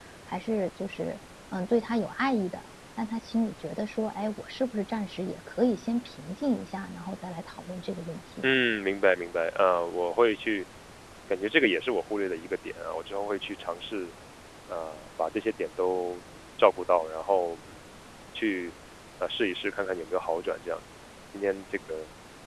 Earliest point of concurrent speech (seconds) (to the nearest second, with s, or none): none